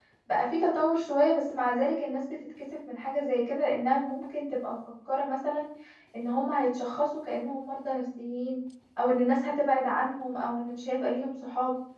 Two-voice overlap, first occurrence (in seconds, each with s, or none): none